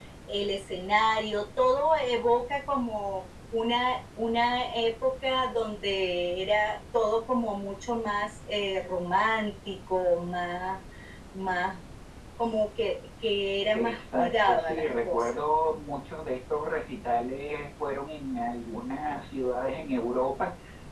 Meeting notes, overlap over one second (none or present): present